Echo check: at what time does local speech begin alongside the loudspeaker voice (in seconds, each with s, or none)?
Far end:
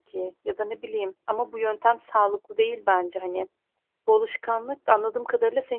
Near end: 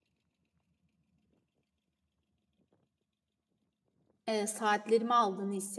4.3 s